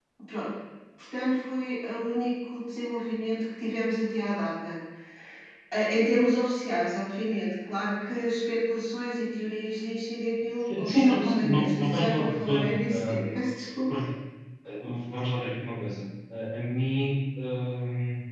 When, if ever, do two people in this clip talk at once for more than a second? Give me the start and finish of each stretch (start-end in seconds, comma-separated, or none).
10.8-13.4